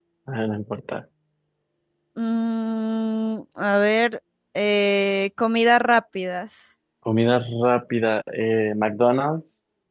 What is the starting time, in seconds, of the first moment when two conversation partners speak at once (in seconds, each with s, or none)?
none